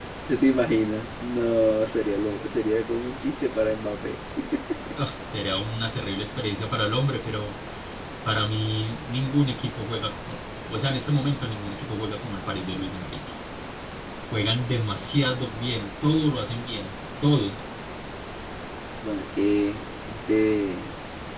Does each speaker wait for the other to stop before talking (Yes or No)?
Yes